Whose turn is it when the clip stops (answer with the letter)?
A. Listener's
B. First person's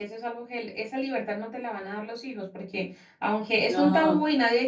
B